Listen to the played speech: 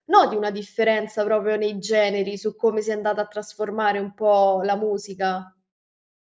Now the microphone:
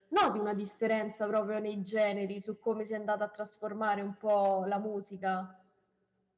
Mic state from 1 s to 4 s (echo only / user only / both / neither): echo only